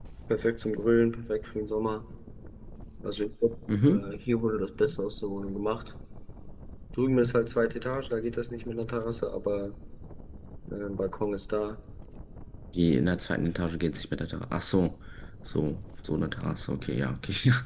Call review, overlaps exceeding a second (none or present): none